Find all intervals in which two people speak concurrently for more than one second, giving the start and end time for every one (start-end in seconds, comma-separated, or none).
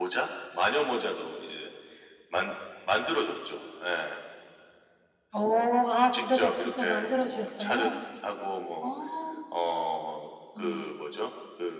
6.1-7.9